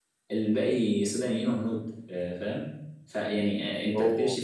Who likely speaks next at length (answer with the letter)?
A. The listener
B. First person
B